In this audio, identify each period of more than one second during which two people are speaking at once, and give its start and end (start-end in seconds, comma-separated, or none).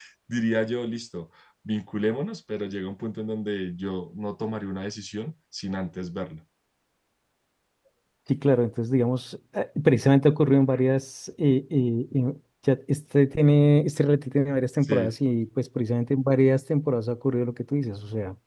none